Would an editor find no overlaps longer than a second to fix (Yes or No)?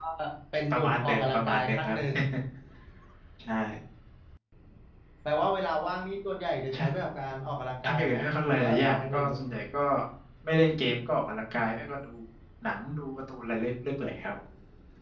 No